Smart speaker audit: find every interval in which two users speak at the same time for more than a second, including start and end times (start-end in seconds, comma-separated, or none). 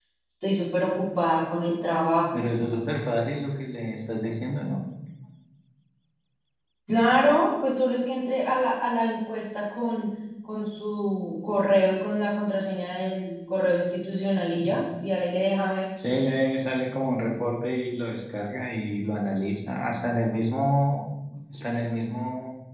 none